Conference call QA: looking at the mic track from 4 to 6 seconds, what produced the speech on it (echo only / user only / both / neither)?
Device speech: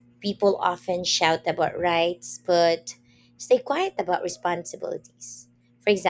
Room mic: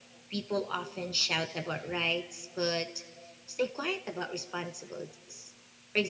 echo only